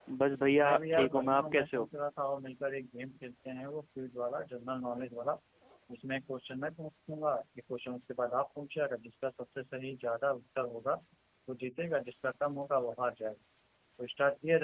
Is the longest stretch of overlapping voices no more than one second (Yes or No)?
No